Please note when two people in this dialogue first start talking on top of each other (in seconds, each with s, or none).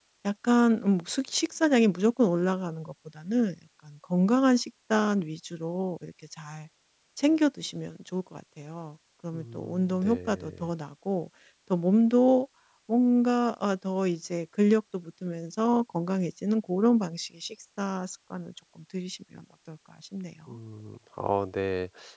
9.3 s